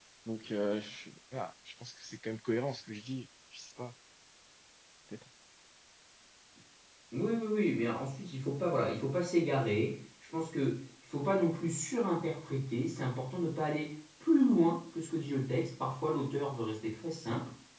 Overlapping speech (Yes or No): No